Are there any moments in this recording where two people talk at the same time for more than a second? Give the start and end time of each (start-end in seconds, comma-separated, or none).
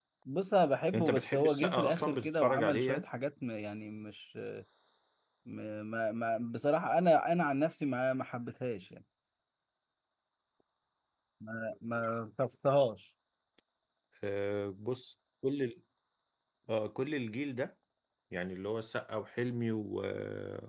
0.9-3.0